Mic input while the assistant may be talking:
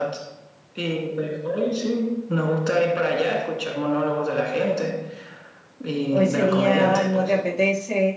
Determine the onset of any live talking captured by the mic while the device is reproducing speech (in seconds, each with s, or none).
6.1 s